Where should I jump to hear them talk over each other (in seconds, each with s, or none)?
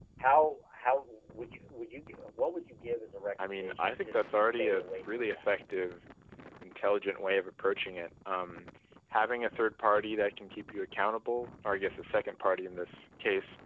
3.4 s